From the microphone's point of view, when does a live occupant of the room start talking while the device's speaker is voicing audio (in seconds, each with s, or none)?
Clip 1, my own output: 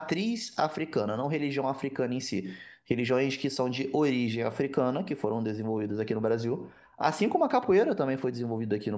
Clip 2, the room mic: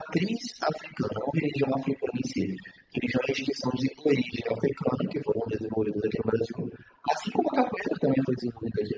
none